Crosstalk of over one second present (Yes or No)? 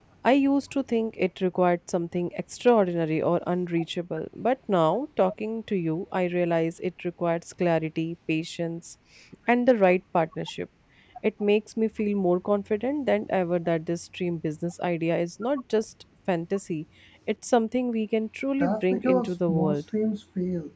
Yes